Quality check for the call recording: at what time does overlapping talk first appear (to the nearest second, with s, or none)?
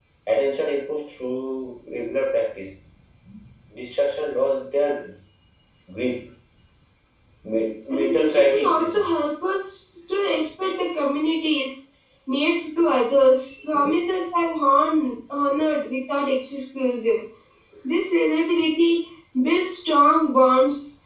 8 s